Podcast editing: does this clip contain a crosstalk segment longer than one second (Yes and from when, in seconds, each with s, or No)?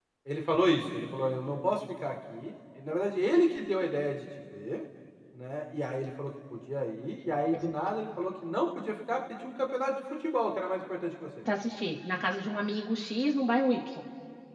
No